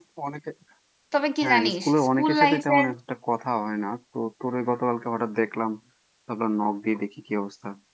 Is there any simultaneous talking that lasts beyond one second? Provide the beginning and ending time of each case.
1.4-2.9

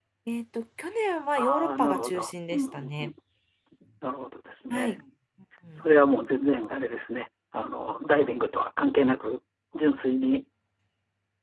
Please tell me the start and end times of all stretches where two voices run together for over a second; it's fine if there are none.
1.4-3.1

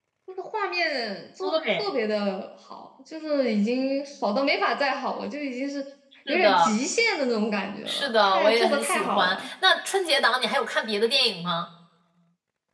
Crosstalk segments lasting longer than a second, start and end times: 7.9-9.5

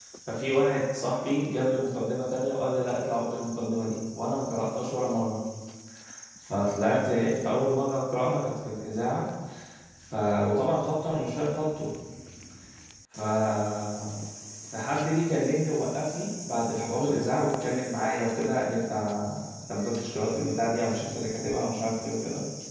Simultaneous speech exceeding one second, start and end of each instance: none

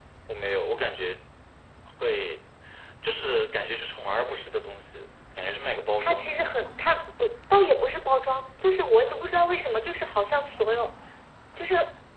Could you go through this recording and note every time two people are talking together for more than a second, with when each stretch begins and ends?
none

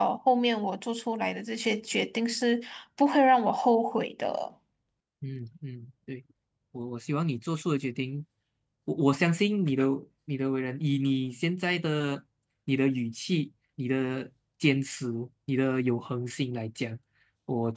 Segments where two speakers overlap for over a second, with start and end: none

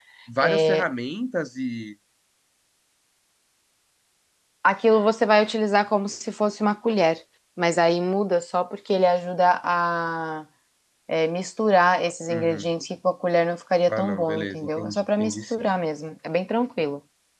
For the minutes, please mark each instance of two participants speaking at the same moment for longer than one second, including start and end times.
13.9-15.6

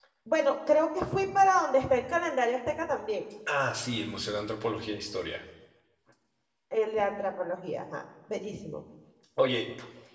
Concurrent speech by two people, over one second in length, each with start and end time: none

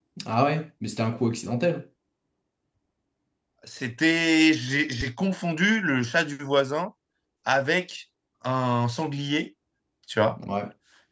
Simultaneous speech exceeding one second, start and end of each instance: none

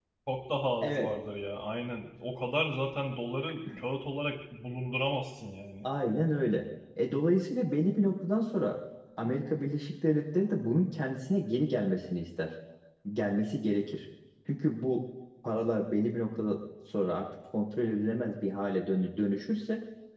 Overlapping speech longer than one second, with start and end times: none

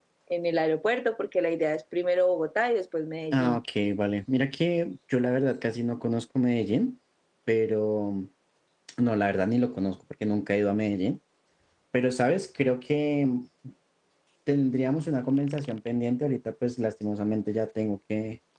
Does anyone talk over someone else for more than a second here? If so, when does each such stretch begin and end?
none

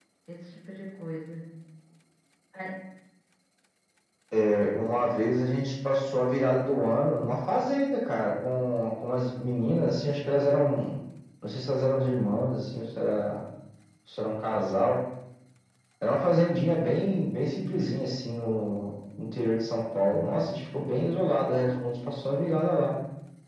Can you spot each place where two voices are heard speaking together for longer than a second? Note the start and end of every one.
none

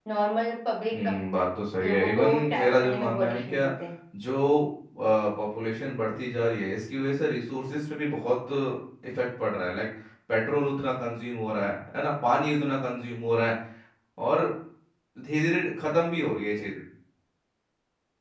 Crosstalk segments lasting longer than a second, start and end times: 1.8-3.7

